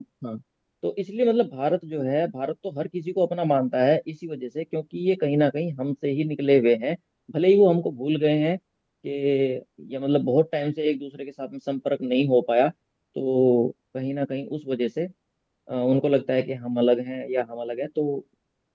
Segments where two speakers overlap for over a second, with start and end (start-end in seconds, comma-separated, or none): none